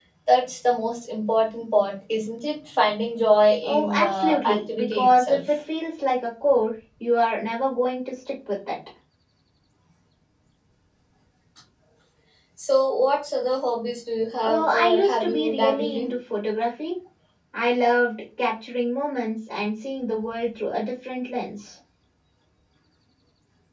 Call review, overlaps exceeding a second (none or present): present